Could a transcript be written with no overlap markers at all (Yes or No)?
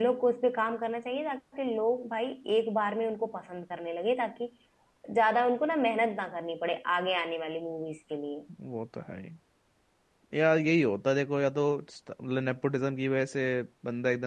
Yes